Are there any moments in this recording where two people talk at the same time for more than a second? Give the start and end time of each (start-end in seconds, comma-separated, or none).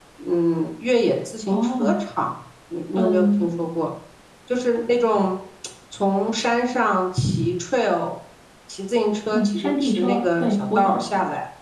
9.3-11.0